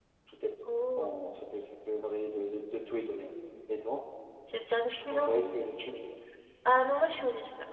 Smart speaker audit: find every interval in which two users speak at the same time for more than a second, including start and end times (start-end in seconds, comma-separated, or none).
none